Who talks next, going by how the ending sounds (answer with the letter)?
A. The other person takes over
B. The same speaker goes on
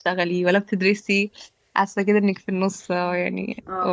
A